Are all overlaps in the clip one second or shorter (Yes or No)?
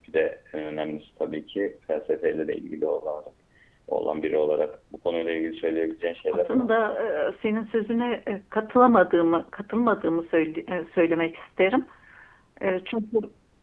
Yes